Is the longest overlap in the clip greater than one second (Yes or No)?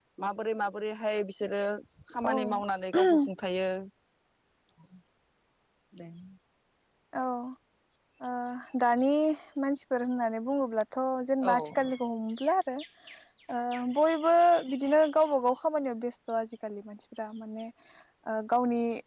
No